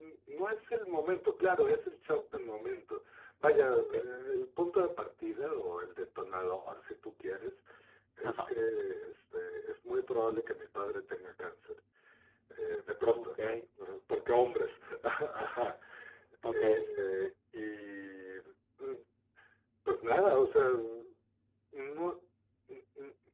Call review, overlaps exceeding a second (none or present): none